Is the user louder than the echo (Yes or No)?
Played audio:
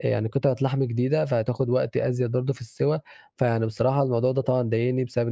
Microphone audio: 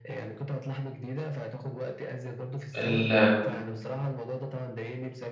Yes